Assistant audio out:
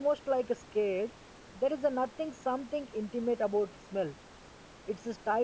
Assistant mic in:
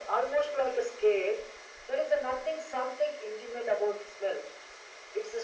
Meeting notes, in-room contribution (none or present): none